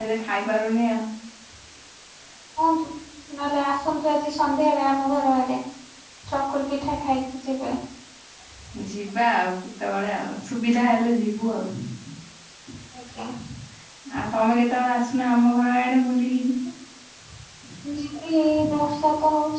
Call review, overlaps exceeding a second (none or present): none